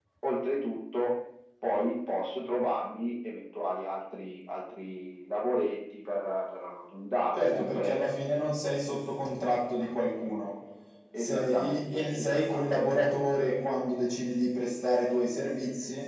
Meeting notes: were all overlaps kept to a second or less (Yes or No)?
No